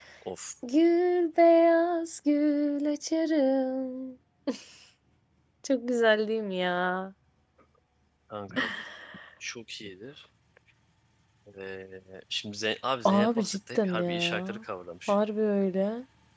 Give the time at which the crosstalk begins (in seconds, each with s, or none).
13.0 s